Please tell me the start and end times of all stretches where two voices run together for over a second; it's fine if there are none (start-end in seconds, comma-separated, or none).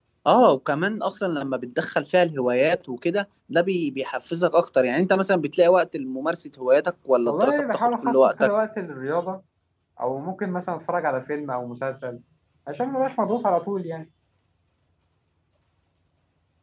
7.2-8.5